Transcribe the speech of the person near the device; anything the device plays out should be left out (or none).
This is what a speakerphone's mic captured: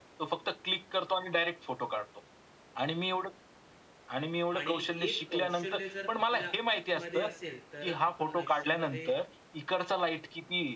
आणि एक कौशल्य जर आपल्यामध्ये असेल, तर आपण आयुष्यामध्ये